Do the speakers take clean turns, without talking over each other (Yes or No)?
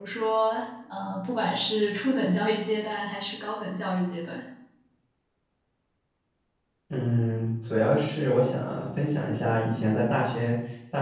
Yes